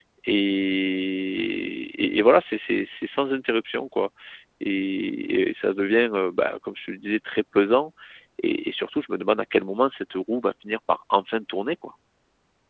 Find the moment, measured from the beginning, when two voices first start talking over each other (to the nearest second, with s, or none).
none